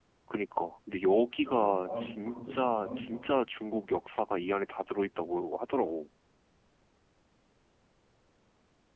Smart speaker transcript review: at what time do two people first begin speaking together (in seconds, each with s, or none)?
1.4 s